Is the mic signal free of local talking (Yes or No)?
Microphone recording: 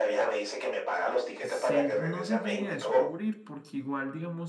No